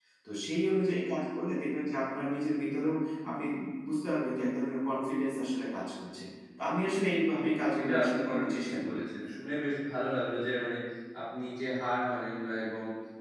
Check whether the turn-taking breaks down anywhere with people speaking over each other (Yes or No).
Yes